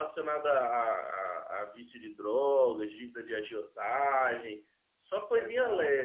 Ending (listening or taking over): taking over